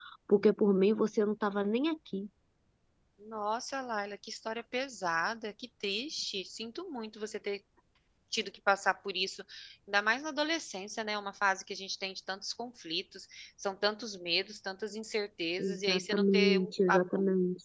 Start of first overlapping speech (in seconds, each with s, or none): 15.6 s